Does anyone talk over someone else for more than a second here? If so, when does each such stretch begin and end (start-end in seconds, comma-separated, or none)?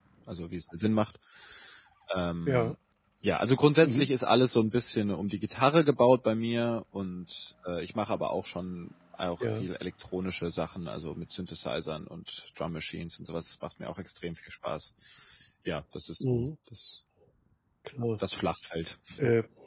none